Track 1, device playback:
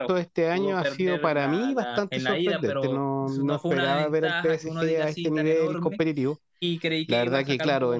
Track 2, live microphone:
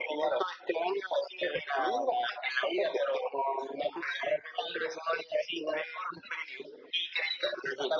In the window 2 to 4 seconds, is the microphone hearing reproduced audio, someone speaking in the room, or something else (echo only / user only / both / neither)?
echo only